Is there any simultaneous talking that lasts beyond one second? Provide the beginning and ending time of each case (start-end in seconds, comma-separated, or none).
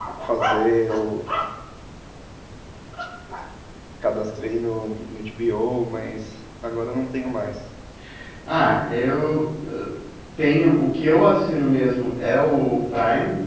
none